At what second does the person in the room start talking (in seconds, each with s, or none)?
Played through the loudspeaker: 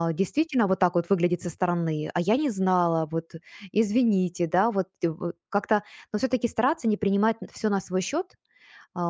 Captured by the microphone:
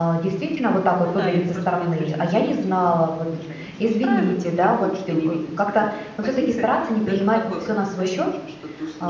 1.0 s